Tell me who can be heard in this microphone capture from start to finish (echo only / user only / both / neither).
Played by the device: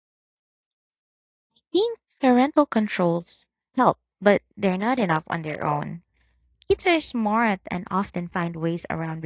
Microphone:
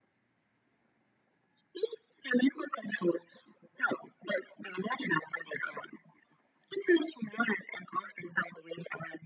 echo only